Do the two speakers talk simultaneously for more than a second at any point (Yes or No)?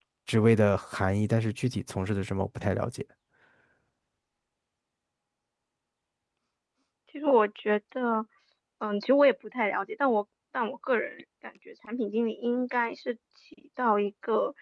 No